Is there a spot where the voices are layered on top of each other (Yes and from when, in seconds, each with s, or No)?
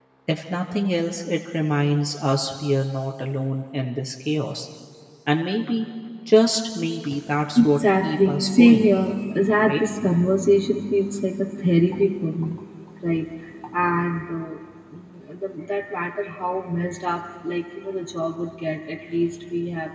Yes, from 7.6 s